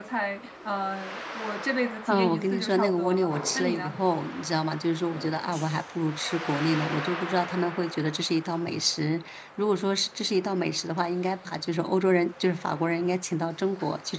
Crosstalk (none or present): present